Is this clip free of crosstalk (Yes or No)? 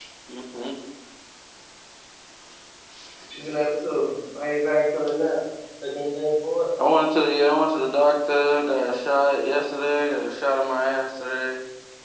Yes